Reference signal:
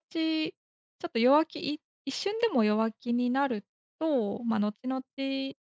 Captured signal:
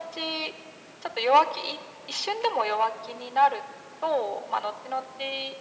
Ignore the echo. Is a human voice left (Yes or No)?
No